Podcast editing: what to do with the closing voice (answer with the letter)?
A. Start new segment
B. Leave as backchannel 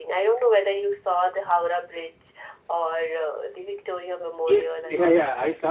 A